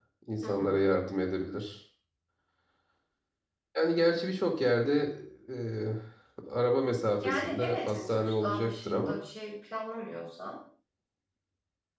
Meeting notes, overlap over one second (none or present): present